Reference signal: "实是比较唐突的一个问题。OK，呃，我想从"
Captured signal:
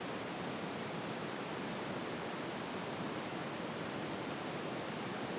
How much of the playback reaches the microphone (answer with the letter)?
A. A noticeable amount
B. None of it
B